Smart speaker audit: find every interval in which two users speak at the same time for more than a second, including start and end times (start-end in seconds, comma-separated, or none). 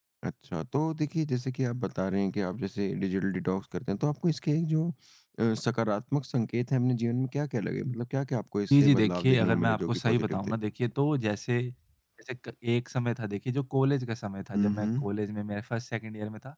8.7-10.5